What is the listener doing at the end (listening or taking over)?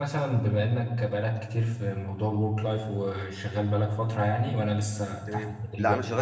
taking over